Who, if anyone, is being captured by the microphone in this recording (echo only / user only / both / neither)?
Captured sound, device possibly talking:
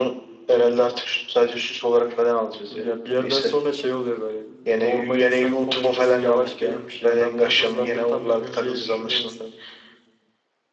echo only